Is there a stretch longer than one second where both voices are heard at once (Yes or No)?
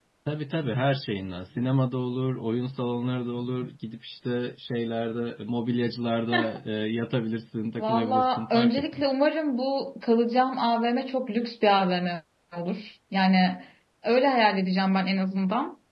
Yes